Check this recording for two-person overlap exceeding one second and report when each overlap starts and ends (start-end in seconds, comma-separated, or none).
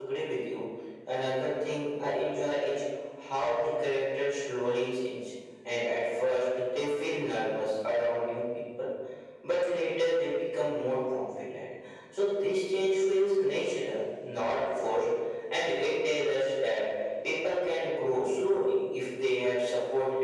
none